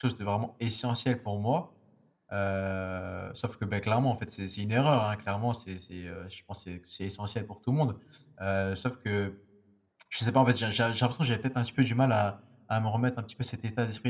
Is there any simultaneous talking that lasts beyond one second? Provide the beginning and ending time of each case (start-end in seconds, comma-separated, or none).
none